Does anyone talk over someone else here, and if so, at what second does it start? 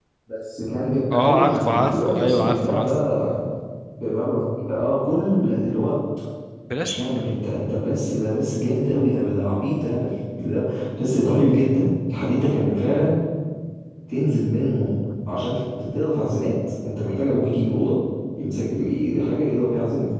1.1 s

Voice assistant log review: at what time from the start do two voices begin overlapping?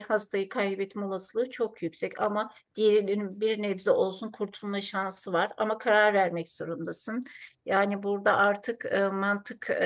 none

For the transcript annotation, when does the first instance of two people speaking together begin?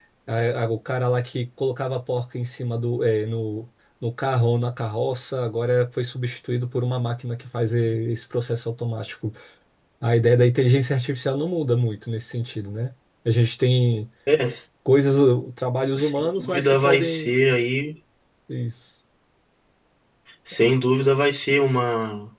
16.0 s

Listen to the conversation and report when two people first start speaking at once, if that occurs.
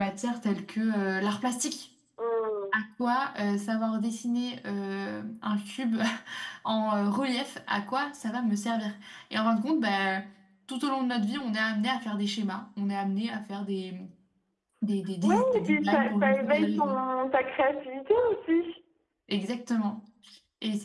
15.2 s

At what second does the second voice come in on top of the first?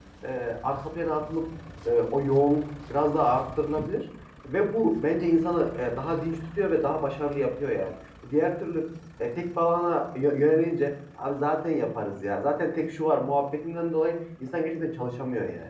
none

